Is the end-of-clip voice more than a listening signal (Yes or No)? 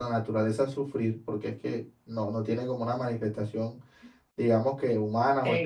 Yes